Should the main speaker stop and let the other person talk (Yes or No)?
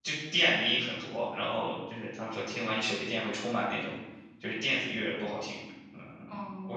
Yes